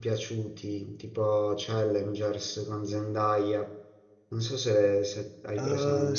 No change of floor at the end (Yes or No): No